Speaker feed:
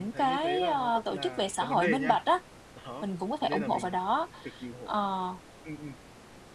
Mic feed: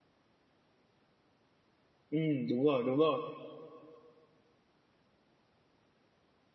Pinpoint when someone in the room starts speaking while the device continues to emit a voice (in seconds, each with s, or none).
2.1 s